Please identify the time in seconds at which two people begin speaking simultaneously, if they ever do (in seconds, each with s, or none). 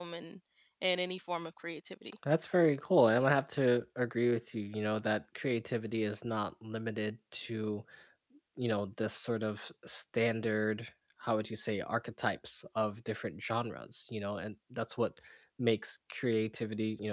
none